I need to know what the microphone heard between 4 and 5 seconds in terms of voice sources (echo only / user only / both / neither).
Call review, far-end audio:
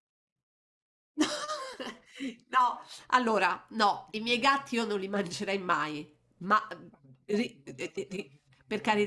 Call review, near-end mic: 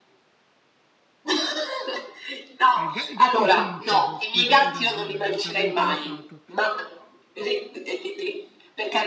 both